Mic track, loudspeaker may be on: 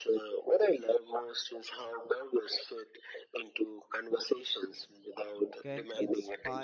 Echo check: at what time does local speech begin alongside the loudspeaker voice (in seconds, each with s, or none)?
5.6 s